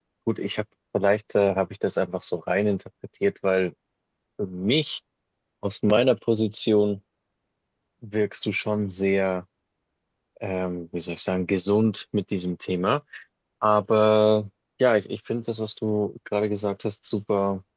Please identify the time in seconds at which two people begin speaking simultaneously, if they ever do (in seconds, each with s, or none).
none